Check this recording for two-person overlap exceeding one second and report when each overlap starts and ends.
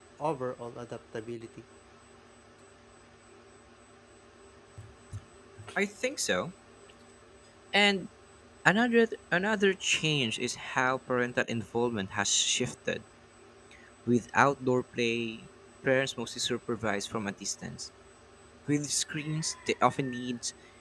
none

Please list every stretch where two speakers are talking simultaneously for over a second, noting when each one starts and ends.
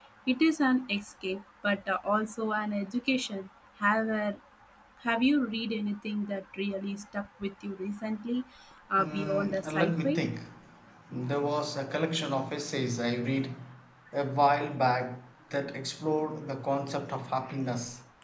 9.0-10.2

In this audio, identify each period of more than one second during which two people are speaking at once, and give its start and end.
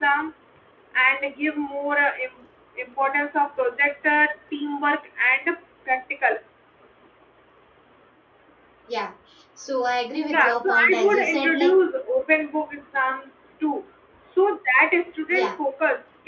10.3-11.7

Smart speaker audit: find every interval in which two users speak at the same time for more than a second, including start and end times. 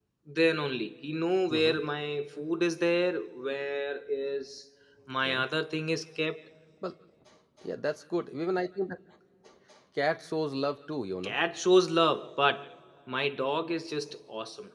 none

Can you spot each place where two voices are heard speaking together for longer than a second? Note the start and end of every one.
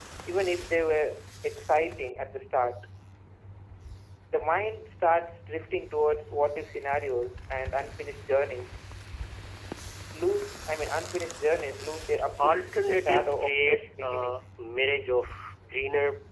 12.4-14.4

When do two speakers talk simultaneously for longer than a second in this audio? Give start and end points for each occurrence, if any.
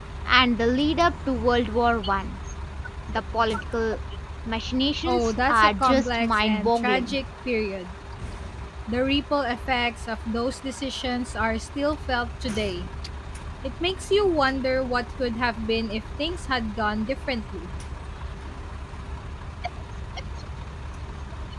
5.0-7.2

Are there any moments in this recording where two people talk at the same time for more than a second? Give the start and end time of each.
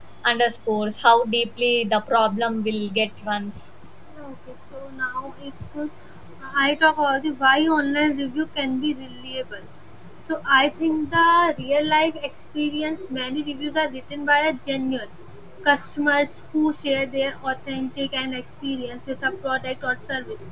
none

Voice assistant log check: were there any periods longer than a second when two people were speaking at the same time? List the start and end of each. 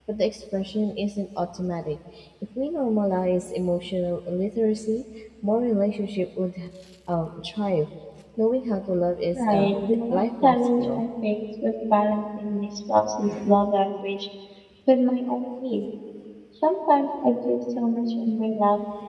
9.3-11.0

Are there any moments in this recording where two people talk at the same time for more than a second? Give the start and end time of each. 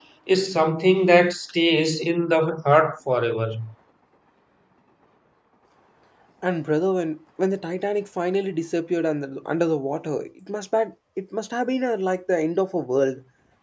none

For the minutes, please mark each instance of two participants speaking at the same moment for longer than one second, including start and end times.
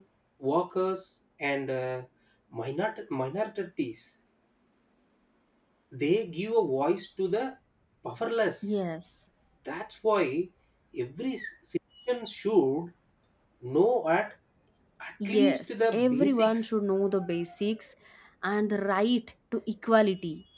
15.2-16.7

